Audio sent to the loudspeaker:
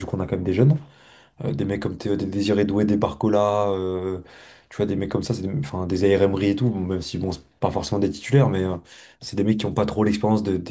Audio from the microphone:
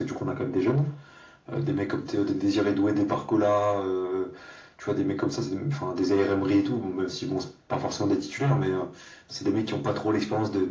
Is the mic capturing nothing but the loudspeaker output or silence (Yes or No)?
Yes